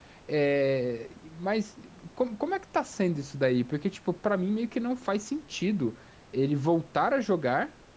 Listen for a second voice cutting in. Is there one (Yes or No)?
No